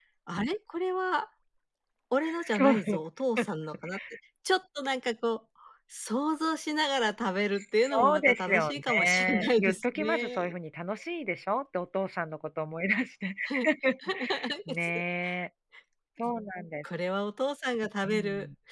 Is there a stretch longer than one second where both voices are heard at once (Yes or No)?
Yes